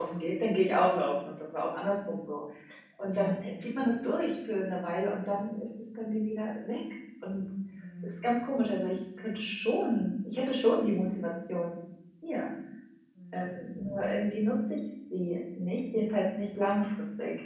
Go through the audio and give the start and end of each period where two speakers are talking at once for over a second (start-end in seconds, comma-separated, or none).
none